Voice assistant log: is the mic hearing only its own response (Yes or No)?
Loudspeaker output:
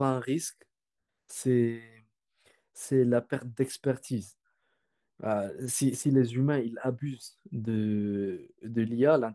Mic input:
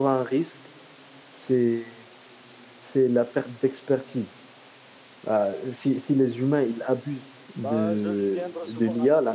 No